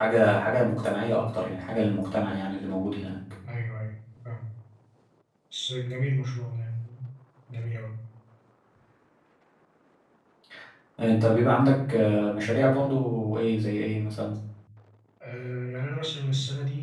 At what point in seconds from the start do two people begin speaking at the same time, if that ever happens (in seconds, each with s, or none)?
none